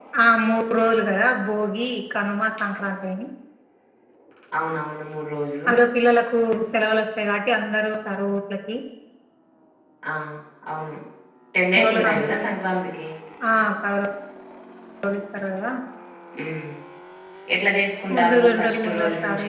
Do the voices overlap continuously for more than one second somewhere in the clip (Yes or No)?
Yes